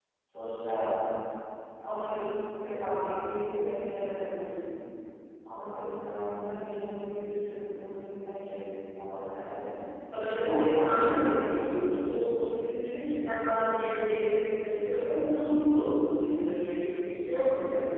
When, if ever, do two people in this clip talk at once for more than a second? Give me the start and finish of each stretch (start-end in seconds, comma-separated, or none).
10.2-12.0